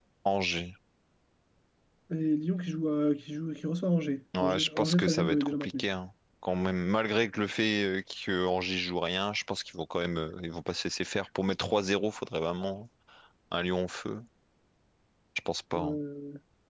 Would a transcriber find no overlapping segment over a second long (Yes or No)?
No